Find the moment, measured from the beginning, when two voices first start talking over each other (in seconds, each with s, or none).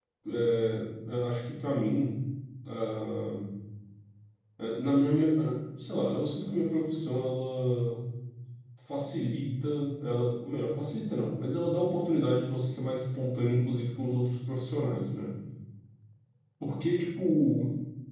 none